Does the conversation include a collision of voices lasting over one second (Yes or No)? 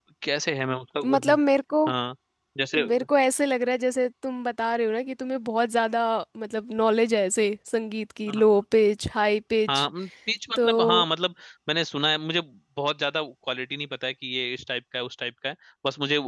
No